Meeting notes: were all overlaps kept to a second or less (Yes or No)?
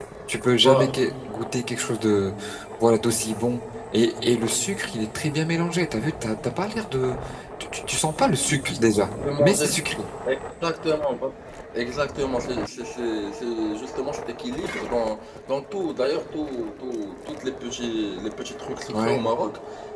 Yes